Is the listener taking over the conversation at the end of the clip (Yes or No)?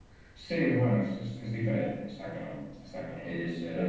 No